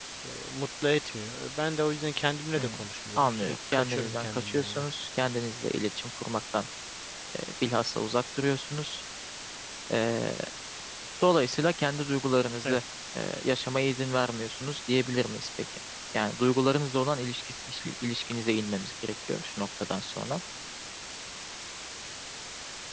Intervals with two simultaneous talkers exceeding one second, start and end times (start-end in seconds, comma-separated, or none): 3.2-4.9